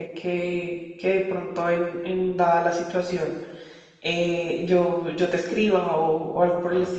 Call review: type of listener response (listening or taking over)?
taking over